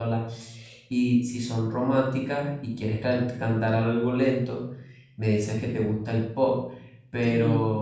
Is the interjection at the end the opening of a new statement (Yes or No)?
No